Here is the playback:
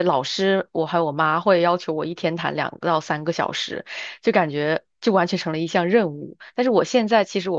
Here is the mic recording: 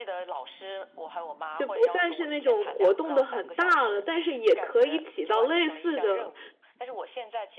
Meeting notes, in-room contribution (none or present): present